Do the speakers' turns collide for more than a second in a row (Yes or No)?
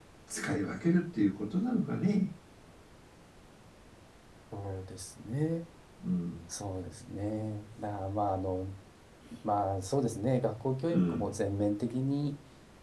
No